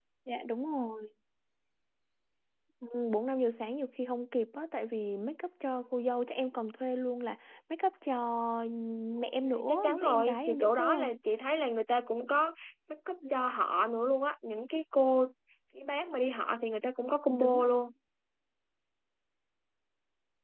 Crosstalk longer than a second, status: present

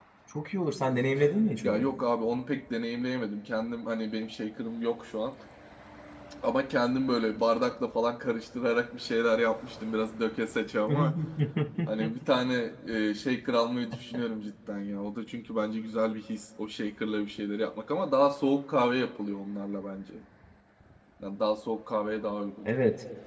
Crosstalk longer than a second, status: none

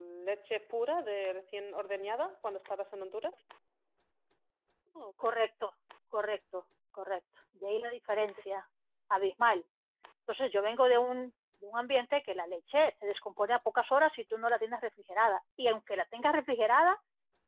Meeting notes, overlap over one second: none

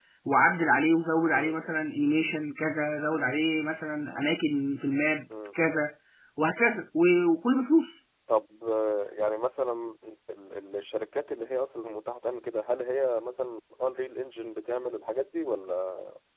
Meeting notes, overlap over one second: none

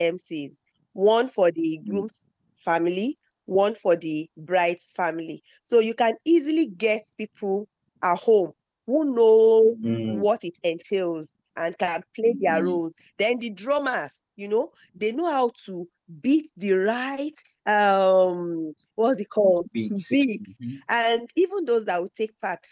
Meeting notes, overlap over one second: none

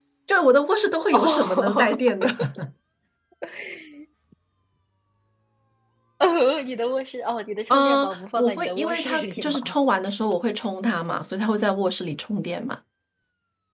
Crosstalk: present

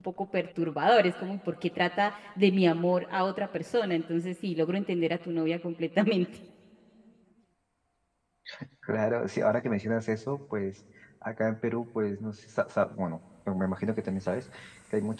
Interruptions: none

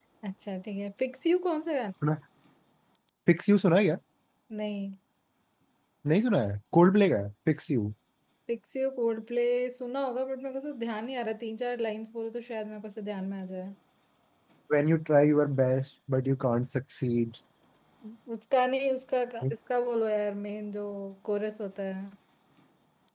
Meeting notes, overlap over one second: none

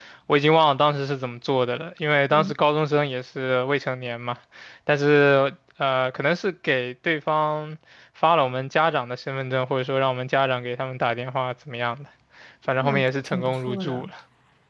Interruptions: present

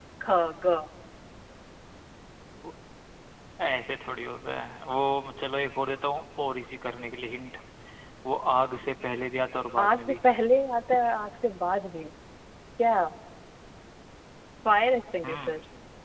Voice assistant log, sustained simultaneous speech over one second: none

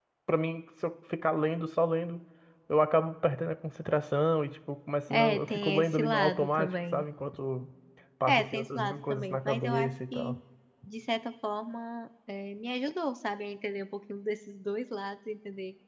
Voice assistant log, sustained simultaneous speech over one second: present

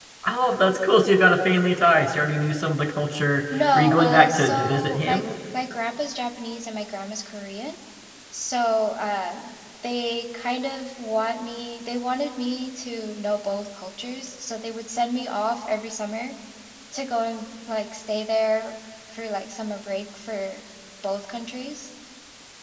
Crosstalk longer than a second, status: present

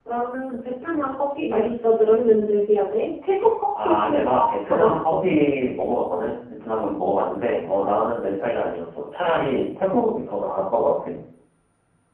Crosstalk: present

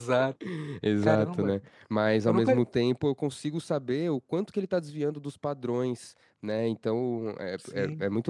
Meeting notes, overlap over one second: none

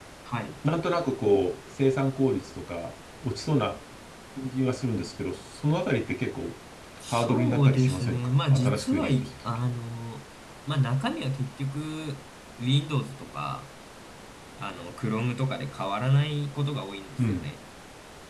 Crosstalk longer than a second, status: present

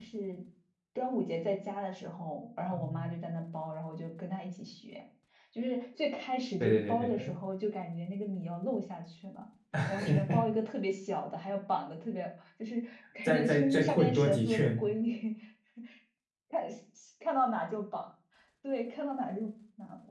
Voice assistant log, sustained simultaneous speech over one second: present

